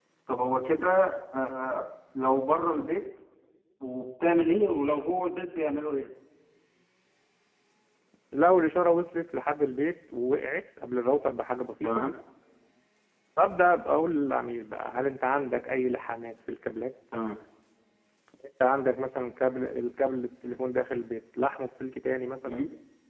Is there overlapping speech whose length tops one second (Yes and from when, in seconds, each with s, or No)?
No